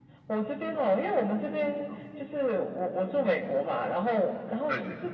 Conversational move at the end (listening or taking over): listening